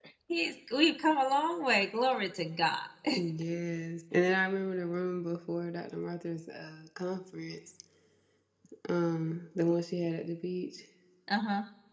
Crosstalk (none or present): none